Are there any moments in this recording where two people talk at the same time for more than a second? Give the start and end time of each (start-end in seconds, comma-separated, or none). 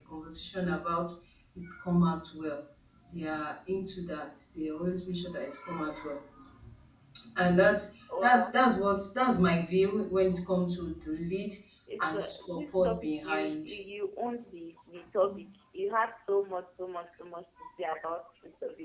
12.0-13.8